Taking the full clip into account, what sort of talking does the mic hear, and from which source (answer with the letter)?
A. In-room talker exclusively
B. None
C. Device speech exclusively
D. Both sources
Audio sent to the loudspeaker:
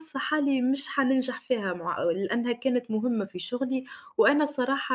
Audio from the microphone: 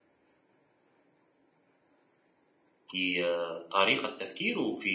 A